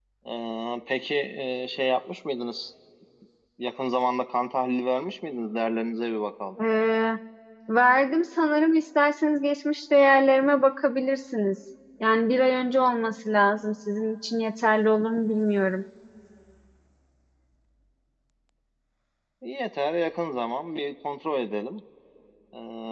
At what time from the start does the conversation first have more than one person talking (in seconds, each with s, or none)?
none